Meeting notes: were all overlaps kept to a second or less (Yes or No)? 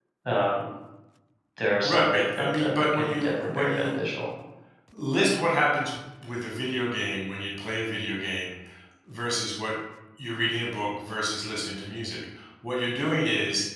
No